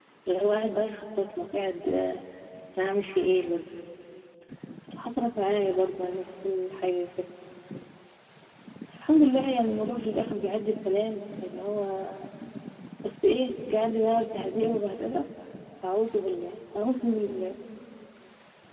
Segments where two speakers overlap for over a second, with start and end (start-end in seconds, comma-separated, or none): none